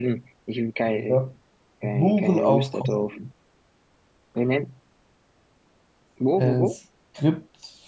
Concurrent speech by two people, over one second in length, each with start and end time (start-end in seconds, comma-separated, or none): 1.8-3.0